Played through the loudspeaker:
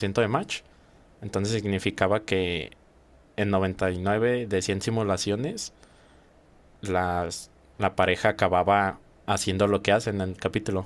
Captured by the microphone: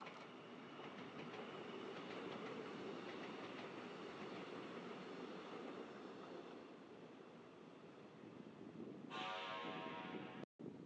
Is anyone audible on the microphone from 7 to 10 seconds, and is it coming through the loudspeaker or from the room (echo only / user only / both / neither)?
neither